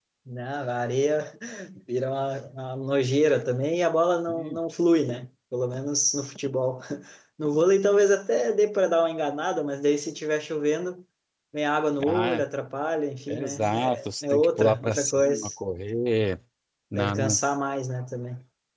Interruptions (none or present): present